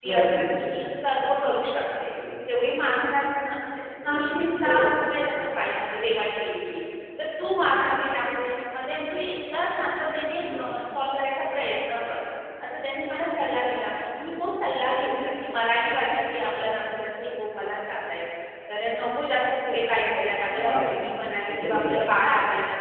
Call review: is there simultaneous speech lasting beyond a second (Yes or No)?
Yes